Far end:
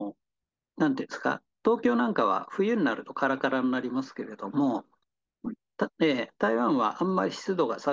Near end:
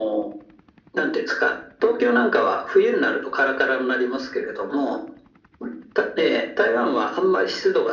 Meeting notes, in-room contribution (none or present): none